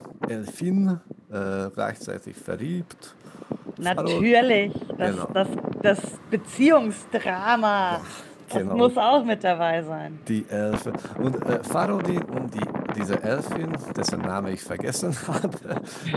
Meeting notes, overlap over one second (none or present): none